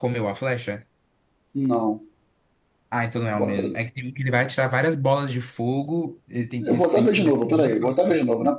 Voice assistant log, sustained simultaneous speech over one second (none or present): present